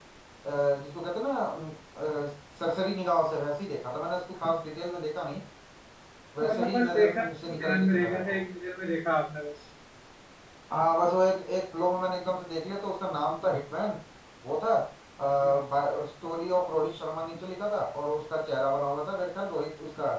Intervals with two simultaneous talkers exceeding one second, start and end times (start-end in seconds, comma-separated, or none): 6.4-8.4